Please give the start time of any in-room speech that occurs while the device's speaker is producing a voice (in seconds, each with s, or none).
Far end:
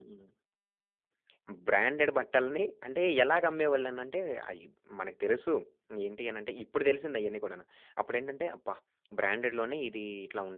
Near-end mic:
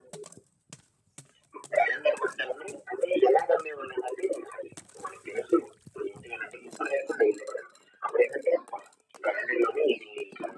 none